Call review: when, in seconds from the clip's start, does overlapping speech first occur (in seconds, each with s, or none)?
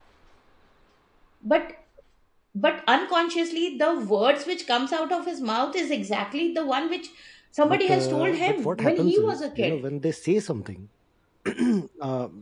7.6 s